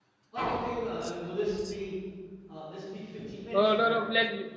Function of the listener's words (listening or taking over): taking over